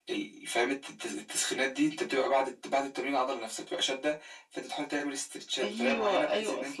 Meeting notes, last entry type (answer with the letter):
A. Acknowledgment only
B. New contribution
B